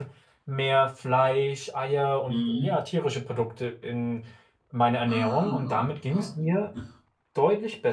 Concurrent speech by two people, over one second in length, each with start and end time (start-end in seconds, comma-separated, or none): 5.0-6.3